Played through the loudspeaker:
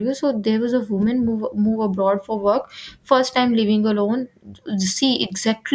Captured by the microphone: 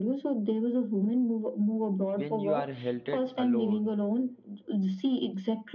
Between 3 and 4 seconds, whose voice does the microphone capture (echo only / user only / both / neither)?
both